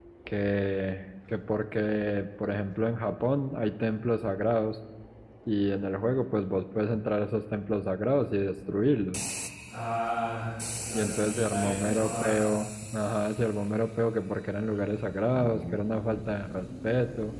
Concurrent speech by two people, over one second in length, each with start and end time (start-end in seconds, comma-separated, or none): 10.9-12.4